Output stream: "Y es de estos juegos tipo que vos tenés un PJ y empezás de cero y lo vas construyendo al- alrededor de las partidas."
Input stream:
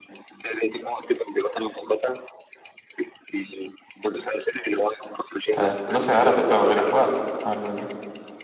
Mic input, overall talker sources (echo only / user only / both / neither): both